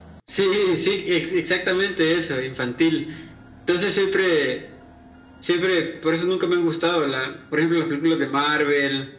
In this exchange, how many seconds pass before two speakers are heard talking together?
none

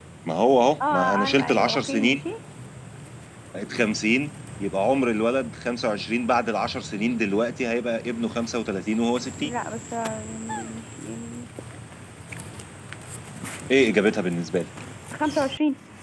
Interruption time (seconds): 0.9 s

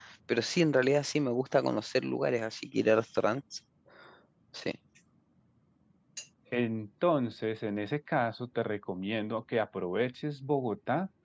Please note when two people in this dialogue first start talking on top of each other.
none

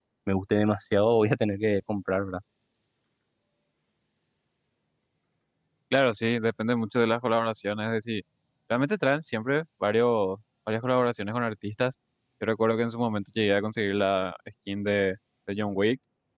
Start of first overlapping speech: none

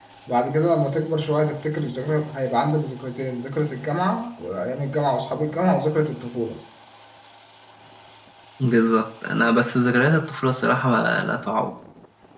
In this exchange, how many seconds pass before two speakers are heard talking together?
none

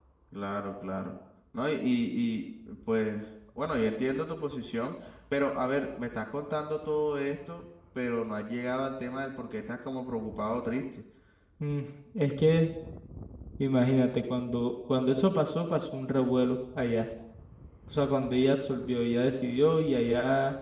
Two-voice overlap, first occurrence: none

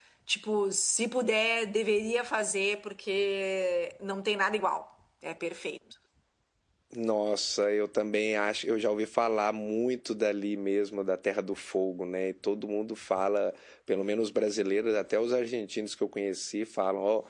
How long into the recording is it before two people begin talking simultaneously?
none

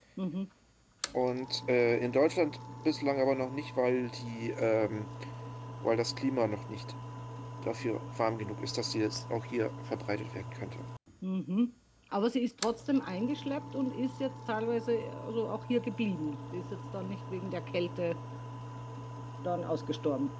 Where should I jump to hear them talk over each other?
none

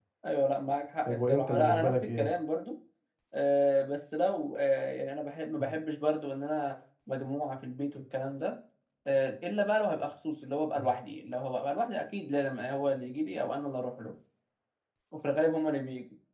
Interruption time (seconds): 1.0 s

